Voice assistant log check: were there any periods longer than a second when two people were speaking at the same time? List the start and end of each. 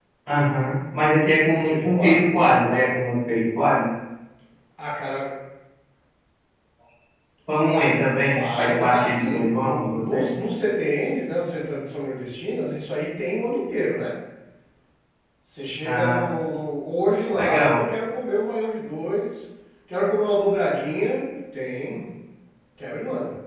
1.5-2.9, 8.2-10.3

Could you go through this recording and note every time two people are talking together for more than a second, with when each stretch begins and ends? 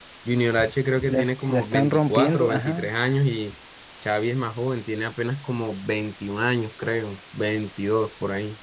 1.0-2.9

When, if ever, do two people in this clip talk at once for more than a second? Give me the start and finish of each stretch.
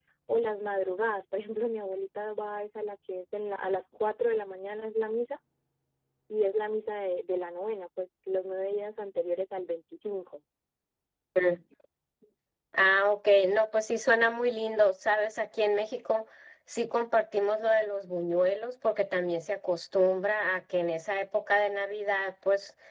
none

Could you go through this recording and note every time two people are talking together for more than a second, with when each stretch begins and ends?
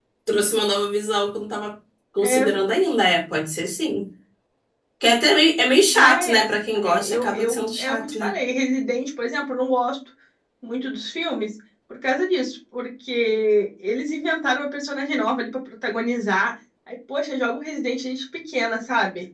6.9-8.3

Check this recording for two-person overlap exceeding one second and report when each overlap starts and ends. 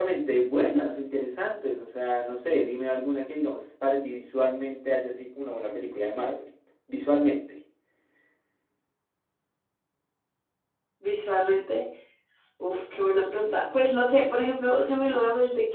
none

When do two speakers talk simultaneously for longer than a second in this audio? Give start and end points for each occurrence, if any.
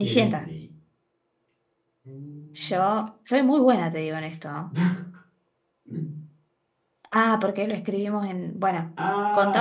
none

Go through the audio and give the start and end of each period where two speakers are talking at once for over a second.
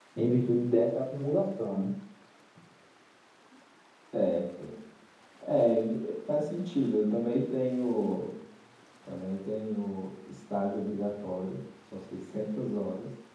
none

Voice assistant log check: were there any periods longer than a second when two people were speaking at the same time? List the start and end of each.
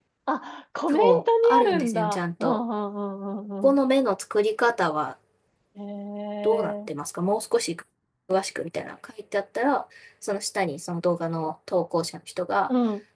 0.9-2.6

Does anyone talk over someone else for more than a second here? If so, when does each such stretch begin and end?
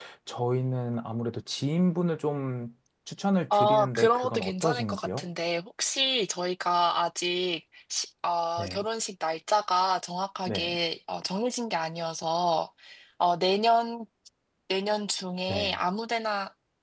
3.5-5.2

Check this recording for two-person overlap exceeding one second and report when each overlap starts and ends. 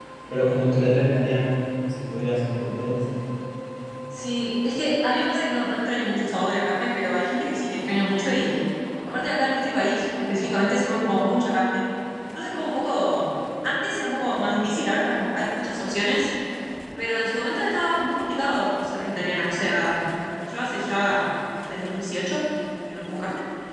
none

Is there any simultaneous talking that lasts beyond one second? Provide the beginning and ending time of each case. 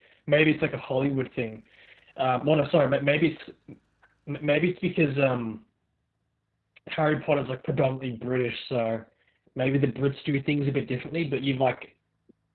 none

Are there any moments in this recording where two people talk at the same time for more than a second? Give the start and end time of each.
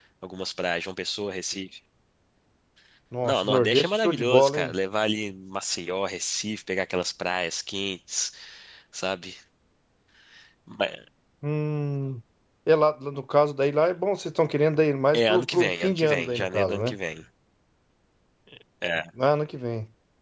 3.2-4.7, 15.1-17.0

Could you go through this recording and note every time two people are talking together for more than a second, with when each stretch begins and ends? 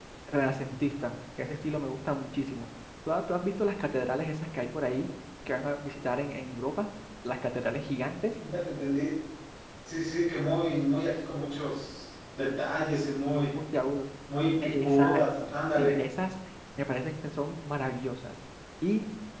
14.6-15.9

